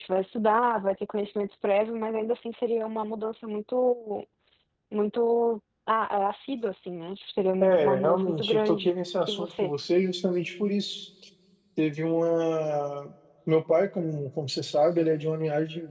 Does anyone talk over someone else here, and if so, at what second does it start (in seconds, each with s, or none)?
7.6 s